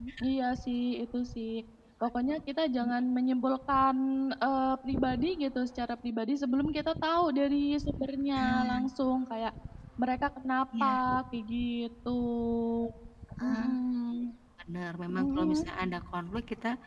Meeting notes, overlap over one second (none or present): none